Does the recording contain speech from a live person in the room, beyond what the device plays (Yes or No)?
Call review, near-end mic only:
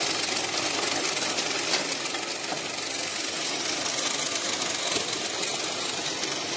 No